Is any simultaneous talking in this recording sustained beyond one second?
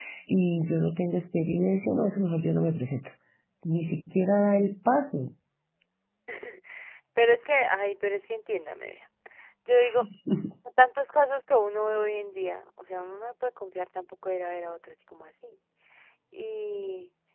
No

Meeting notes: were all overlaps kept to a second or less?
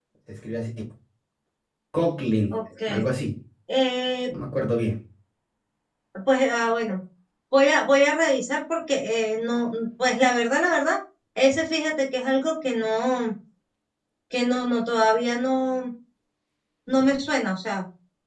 Yes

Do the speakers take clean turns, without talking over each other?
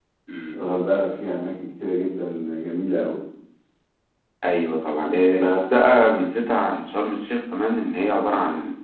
Yes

